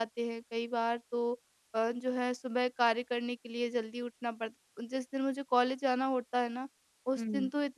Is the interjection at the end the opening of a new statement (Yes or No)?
No